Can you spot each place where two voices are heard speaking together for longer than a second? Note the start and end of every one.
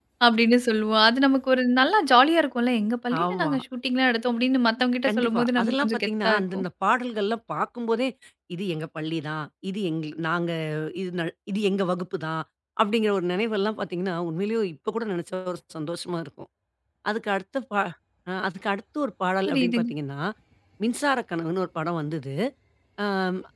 5.1-6.6

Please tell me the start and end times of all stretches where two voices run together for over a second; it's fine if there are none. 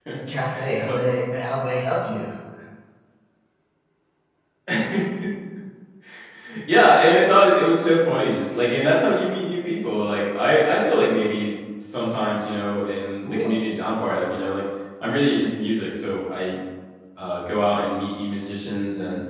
none

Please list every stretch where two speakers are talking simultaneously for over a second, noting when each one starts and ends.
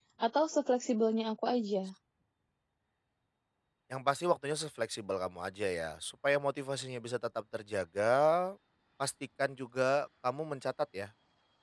none

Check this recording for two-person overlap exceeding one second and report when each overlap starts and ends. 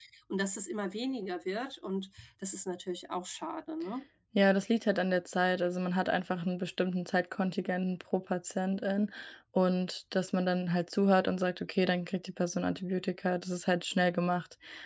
none

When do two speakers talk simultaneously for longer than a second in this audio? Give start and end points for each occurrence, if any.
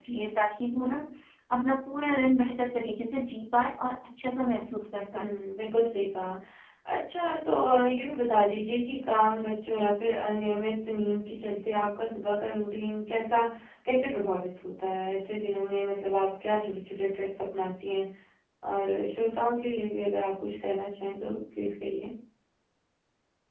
none

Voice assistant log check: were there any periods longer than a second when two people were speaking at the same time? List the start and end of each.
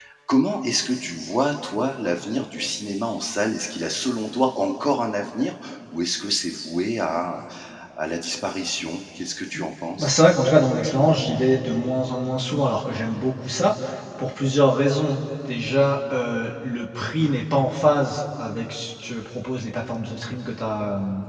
none

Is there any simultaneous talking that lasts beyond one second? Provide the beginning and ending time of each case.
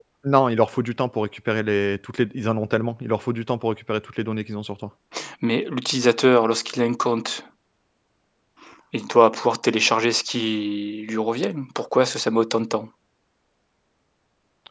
none

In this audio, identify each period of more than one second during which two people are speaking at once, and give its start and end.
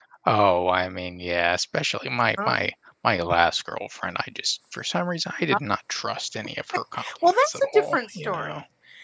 7.2-8.5

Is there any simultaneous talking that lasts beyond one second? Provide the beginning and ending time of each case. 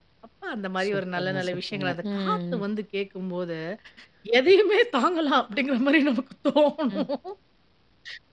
0.8-2.6

